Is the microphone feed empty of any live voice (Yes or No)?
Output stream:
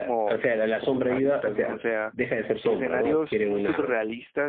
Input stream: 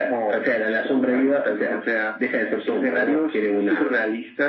Yes